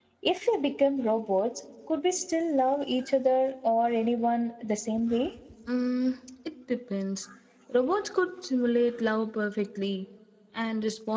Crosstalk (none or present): none